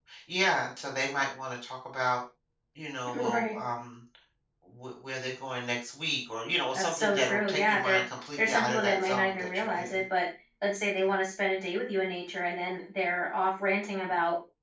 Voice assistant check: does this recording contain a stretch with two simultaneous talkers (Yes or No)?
Yes